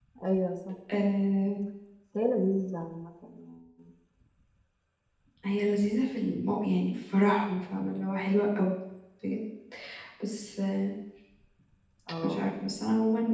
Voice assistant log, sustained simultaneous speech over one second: none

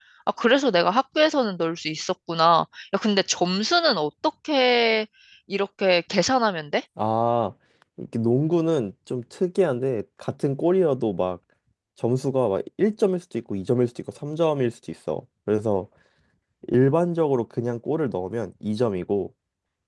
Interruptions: none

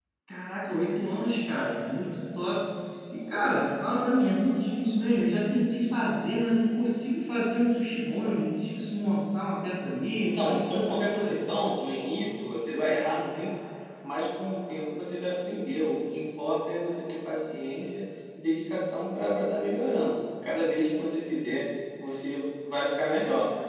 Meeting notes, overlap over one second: present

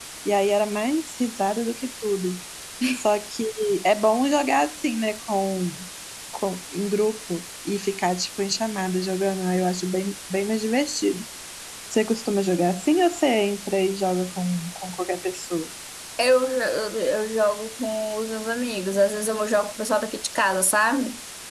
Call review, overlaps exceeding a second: none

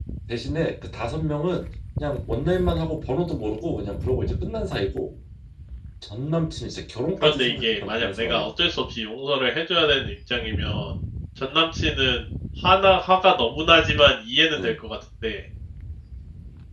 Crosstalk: present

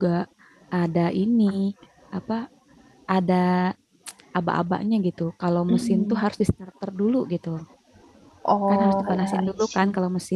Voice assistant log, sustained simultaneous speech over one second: present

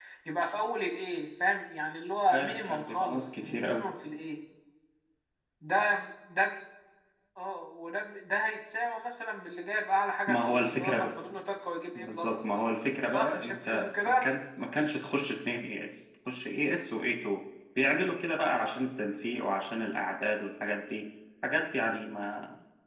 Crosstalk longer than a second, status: present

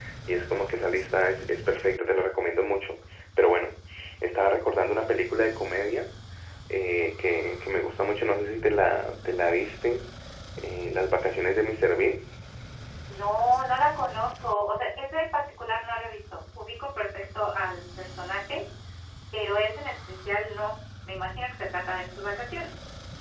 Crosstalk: none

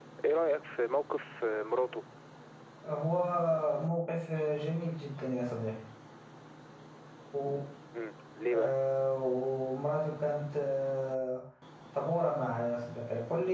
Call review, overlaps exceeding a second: none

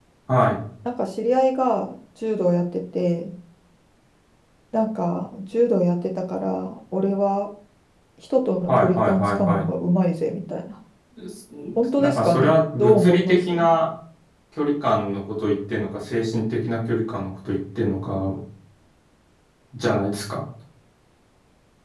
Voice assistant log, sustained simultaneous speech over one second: present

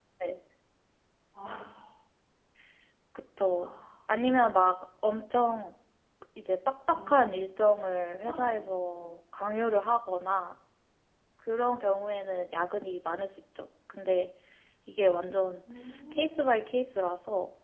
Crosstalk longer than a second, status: none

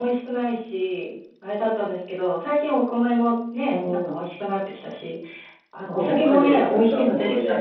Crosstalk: present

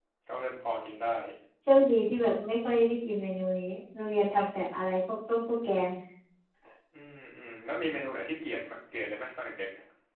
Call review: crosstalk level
none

